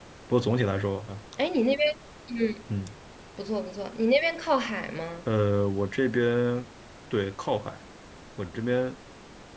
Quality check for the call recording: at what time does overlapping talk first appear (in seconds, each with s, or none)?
none